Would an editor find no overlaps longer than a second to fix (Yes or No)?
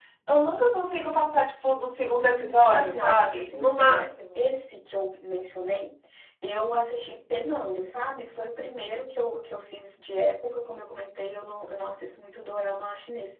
No